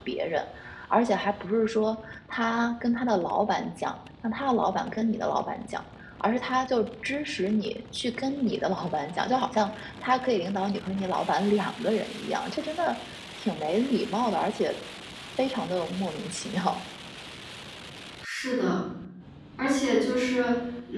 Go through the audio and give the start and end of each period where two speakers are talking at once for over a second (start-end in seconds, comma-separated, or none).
none